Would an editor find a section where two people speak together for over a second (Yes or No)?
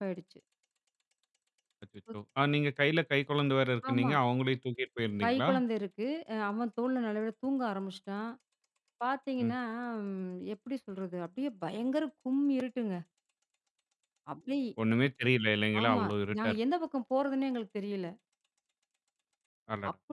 No